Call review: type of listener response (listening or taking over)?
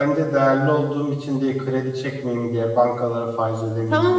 taking over